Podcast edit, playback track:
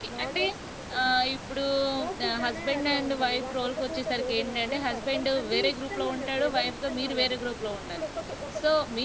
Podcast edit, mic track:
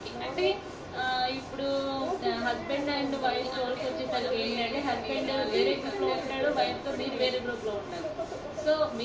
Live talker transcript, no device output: ఓకే. అంటే మనం లేడీస్ అండి ఇక్కడ. లేడీస్ అంతే అనుకుంటాం ఎప్పటికి.

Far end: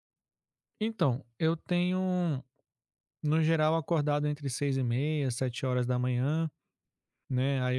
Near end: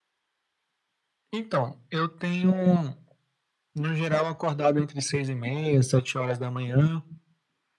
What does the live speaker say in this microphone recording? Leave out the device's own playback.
none

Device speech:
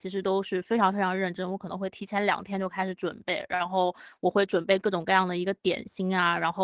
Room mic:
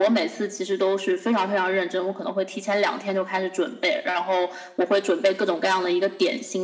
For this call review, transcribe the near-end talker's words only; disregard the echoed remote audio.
none

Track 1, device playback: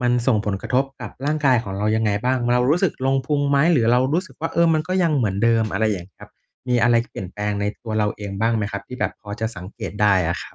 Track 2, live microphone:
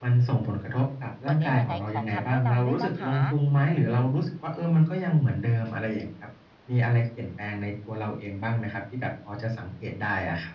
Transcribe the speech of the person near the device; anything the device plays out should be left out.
วันนี้ยังไงขอคำแนะนำด้วยนะคะ

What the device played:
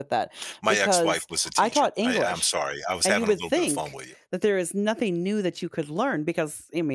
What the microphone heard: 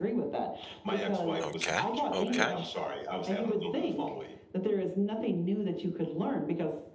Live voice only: Okay. Okay.

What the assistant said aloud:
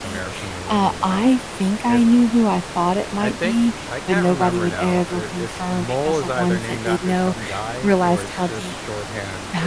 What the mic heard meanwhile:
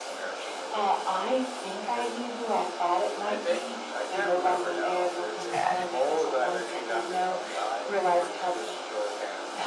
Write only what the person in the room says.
was bad.

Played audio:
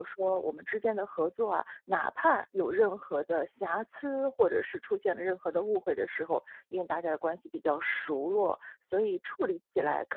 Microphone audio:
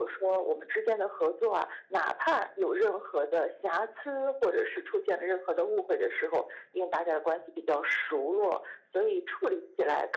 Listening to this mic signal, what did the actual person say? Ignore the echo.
none

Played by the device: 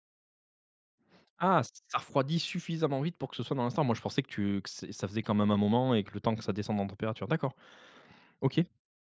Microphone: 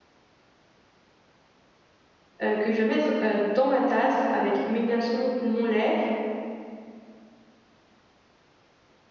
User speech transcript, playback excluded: heu, que je vais mettre, heu, dans ma tasse avec mes glaçons, mon lait,

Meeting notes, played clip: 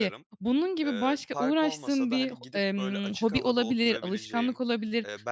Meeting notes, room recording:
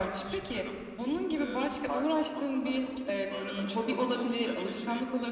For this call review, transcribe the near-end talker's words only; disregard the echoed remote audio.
none

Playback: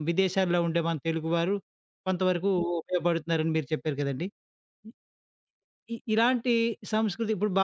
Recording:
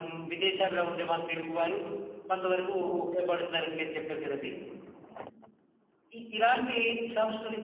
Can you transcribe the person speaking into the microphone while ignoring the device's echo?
none

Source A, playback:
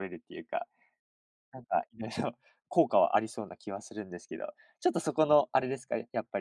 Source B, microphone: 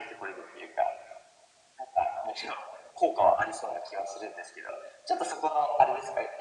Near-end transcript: none

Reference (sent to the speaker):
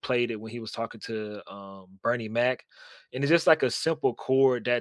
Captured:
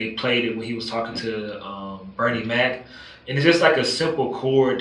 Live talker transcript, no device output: none

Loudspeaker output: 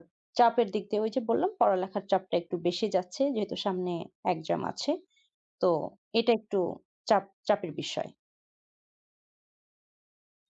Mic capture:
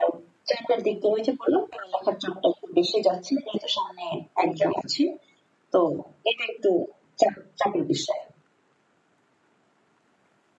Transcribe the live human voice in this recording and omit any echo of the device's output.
none

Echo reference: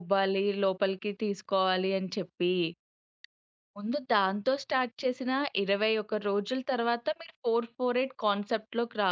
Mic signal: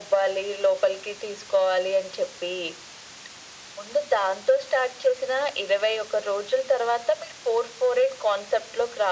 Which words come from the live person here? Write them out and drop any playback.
none

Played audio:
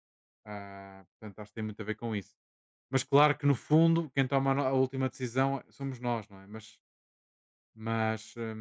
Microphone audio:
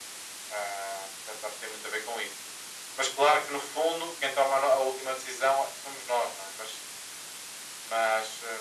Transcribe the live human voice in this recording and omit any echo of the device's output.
none

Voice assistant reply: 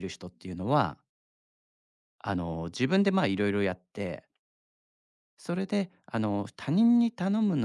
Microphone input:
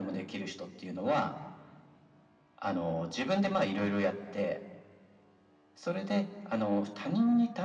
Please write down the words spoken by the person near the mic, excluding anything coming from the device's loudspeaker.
none

